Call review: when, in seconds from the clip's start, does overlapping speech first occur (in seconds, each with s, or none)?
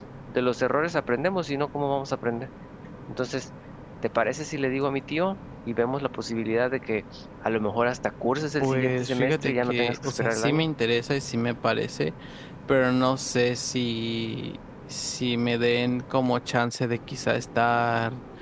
8.6 s